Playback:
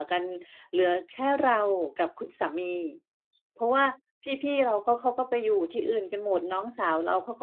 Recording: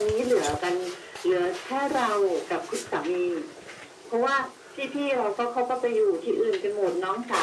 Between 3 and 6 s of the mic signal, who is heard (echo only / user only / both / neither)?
echo only